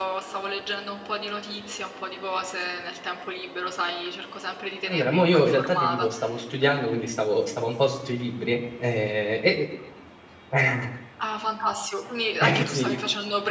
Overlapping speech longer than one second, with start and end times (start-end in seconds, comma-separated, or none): 4.9-6.1